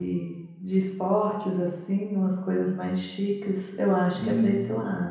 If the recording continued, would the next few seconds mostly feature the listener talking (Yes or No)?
No